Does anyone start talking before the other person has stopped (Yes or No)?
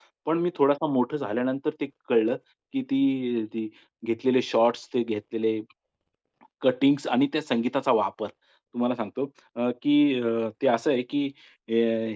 No